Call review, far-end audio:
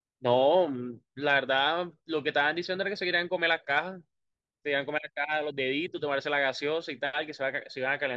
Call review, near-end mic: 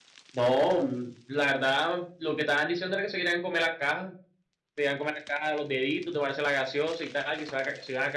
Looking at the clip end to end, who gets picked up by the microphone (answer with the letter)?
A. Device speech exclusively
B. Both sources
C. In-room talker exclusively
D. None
A